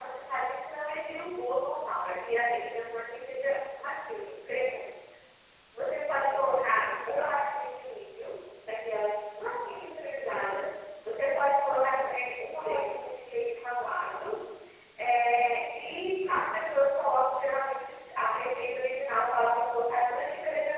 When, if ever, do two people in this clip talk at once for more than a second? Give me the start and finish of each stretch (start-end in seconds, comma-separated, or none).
6.1-7.4